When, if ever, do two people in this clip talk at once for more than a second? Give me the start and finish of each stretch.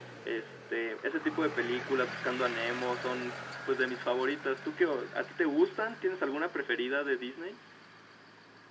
none

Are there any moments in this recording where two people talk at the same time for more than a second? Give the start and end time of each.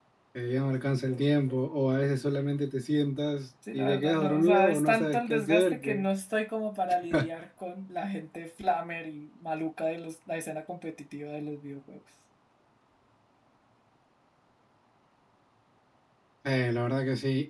3.7-6.0

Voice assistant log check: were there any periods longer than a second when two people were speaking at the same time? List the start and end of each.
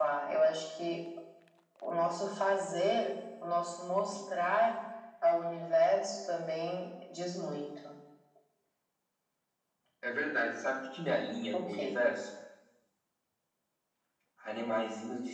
none

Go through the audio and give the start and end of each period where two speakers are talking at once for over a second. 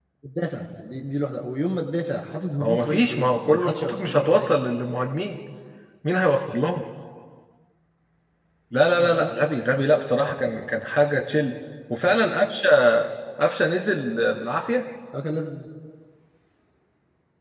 2.6-4.6

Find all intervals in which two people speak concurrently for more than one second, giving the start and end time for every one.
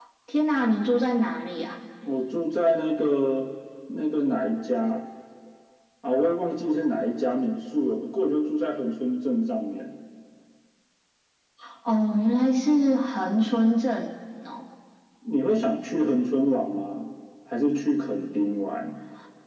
none

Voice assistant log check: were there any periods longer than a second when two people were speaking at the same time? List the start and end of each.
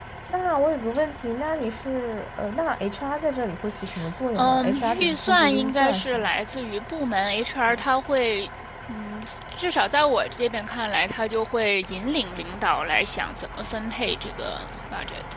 4.3-6.3

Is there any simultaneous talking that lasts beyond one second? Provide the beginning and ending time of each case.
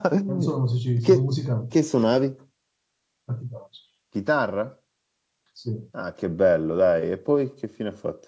none

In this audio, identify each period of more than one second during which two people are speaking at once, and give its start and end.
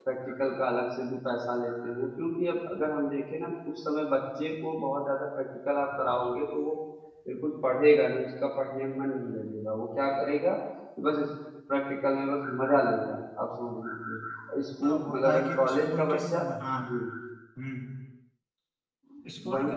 14.8-16.4

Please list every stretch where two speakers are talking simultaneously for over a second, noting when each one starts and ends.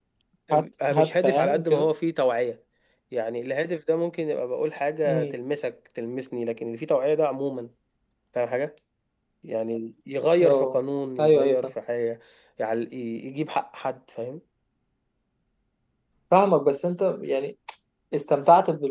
0.5-1.9

